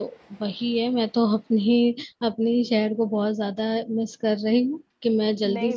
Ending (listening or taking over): taking over